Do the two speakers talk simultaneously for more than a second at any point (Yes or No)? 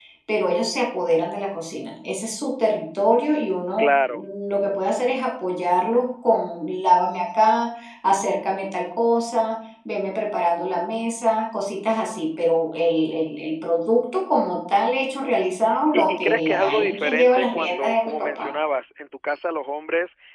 Yes